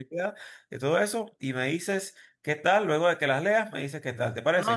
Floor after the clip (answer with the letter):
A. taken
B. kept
A